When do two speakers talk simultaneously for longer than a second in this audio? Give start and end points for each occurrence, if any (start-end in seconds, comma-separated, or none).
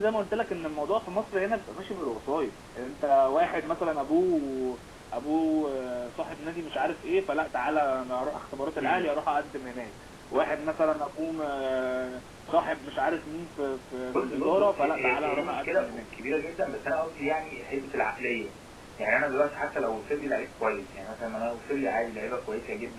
14.1-16.1